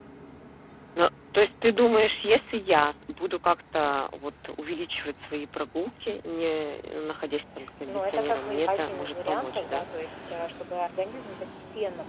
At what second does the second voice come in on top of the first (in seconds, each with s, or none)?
7.9 s